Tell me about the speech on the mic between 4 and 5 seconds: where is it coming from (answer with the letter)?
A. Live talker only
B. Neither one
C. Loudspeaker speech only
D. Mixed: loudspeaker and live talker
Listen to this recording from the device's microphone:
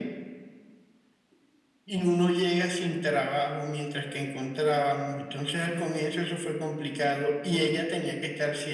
C